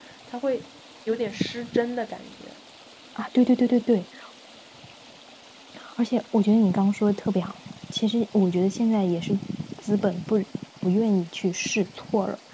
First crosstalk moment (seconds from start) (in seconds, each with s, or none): none